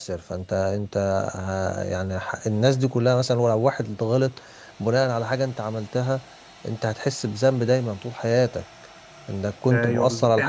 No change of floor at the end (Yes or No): No